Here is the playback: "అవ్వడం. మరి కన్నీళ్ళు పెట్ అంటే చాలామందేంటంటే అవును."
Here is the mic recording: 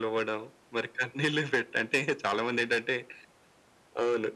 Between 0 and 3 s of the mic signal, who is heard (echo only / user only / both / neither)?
echo only